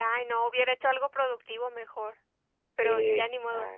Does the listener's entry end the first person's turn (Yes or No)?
Yes